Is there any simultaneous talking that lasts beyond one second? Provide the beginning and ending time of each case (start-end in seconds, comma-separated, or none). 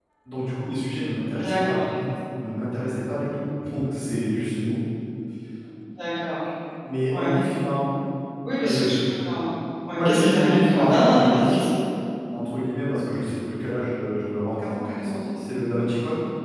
9.9-11.6